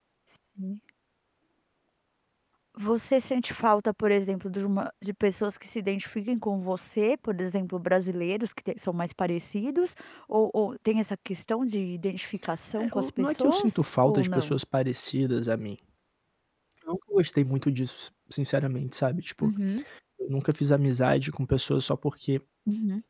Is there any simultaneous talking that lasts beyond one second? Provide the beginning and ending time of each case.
12.8-14.6

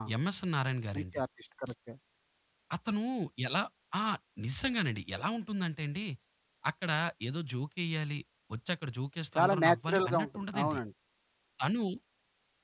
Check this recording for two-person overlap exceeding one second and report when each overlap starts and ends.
9.4-10.8

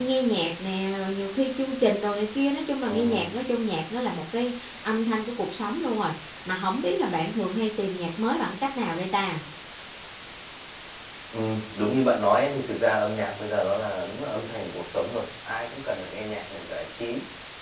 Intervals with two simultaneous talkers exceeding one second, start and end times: none

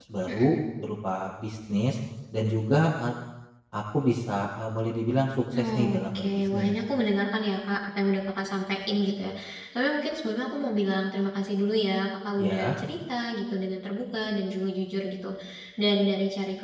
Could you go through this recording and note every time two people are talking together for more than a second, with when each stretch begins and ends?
5.5-6.7

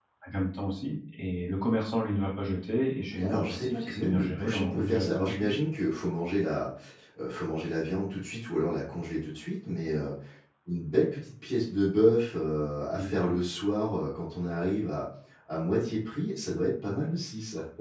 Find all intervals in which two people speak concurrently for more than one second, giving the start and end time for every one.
3.1-5.5

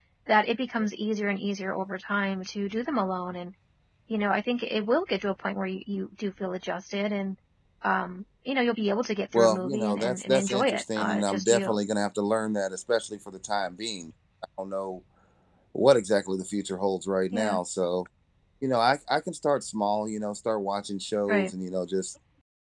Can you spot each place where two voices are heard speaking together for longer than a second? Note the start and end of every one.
9.3-11.8

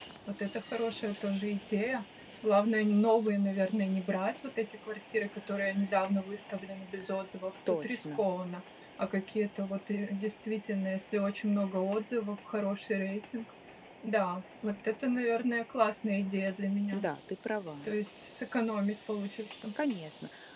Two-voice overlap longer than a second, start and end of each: none

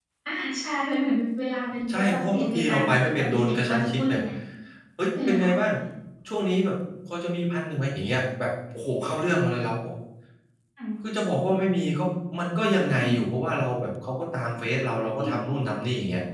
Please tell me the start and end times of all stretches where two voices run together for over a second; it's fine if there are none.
1.9-4.2

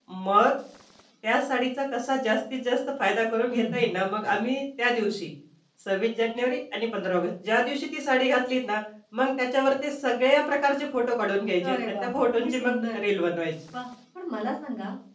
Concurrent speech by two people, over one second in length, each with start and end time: 11.7-13.0

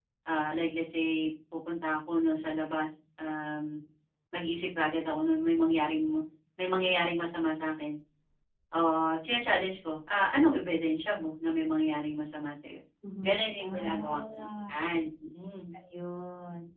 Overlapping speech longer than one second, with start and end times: 13.2-14.7

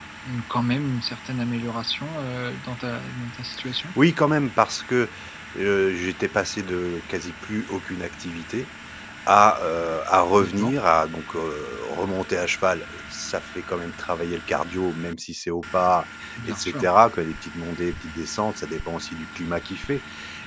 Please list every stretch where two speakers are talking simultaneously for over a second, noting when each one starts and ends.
none

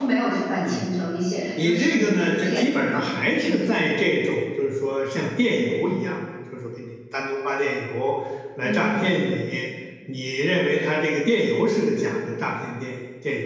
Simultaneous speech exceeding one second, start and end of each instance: 1.6-3.0

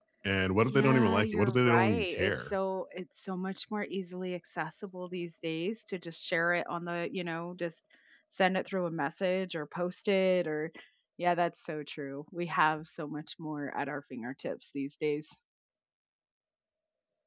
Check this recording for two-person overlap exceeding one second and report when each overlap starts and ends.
0.7-2.5

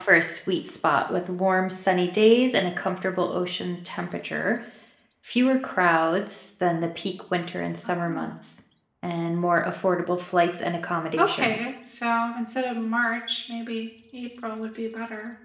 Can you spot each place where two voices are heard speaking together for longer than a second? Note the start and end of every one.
none

